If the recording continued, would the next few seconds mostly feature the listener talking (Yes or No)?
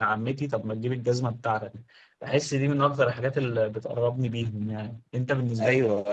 Yes